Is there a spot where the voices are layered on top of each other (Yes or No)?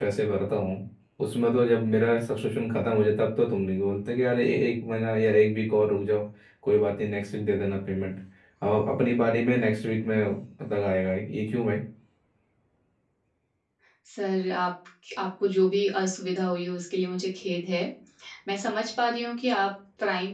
No